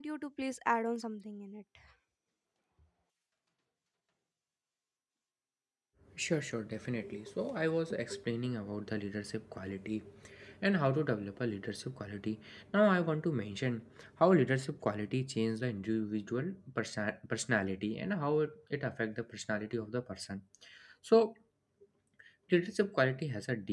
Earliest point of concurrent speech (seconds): none

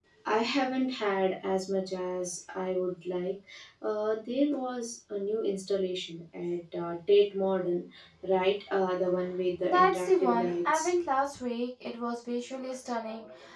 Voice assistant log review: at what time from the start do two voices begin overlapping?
9.6 s

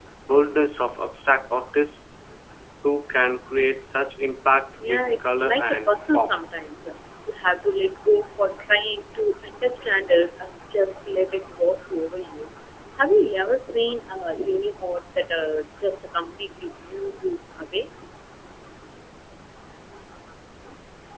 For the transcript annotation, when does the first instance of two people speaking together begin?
4.8 s

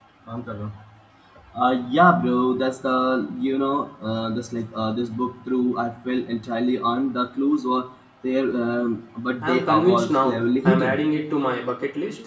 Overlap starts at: 9.4 s

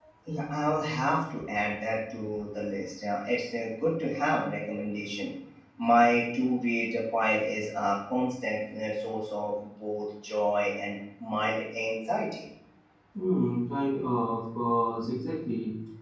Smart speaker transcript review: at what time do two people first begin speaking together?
none

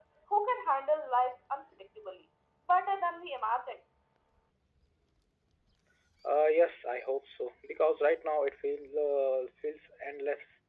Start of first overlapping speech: none

